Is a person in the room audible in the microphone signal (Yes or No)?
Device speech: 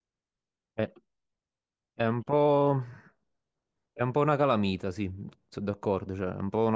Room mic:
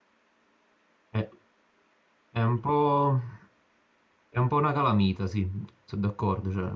No